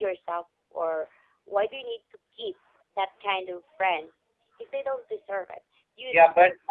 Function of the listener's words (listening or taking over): taking over